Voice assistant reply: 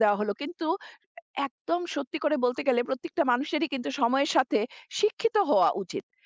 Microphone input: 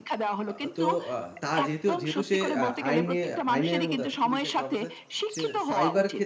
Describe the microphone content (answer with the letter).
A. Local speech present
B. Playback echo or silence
A